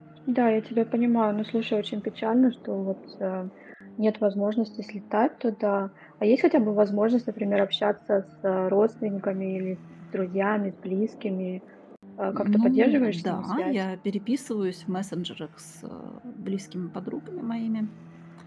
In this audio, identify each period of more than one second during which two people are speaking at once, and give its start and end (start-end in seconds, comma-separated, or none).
12.3-13.8